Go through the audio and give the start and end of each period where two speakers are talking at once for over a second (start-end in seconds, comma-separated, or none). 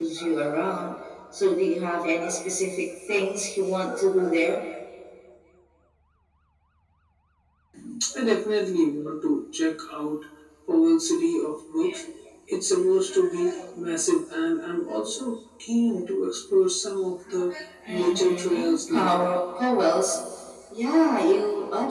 17.9-19.3